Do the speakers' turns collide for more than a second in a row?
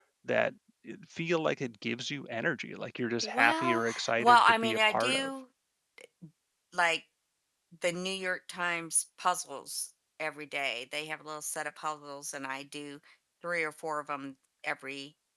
Yes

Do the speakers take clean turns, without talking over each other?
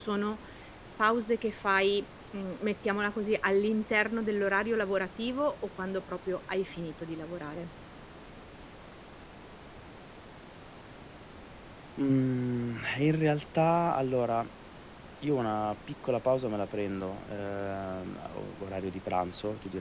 Yes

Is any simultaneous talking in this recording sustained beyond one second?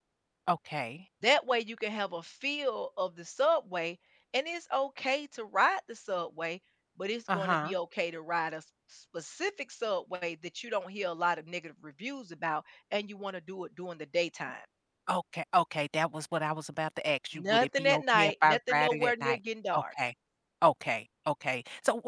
Yes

